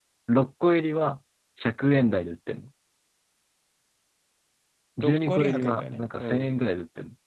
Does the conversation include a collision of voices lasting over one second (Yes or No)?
Yes